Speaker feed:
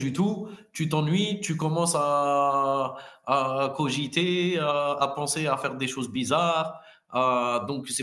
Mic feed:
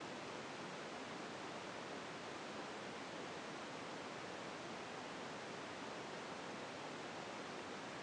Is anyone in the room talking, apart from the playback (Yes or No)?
No